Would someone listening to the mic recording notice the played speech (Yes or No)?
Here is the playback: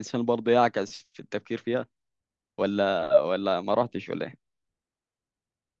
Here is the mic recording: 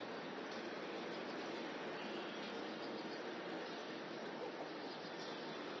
No